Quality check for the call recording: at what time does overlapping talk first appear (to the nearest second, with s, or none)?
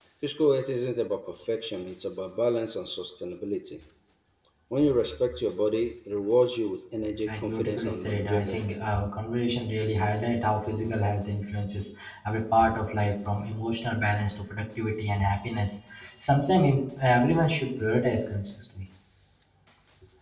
7 s